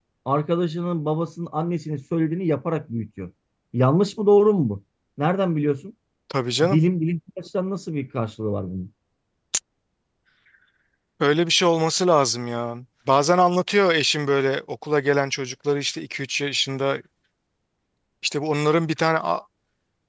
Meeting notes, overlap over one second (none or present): none